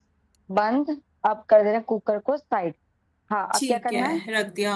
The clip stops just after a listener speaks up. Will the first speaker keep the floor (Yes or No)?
No